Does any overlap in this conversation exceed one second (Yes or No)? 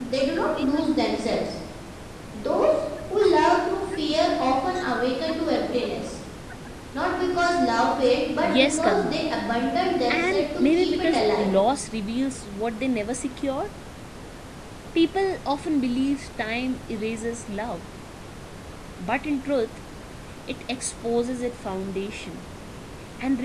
Yes